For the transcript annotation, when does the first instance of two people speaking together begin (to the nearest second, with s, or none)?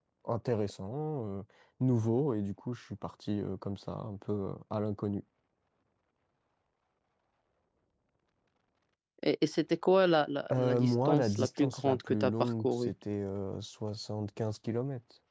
10 s